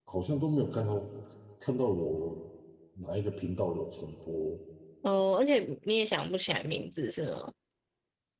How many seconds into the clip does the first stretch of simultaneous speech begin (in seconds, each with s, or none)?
none